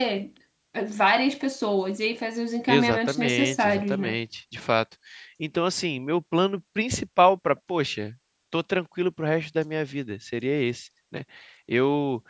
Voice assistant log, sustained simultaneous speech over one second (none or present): present